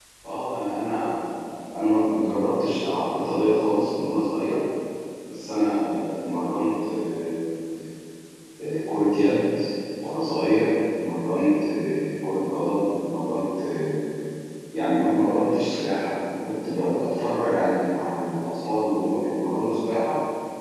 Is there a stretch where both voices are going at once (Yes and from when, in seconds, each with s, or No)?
No